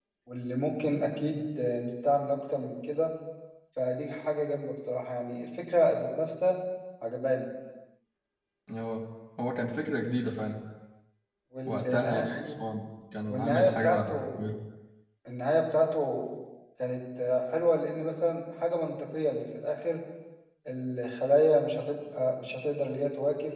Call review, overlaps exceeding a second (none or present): present